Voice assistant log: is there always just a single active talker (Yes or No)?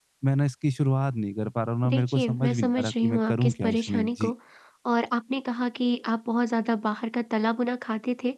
No